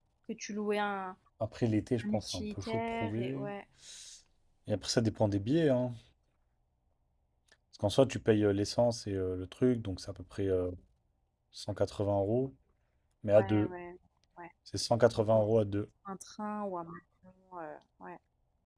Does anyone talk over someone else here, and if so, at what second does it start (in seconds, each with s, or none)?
2.0 s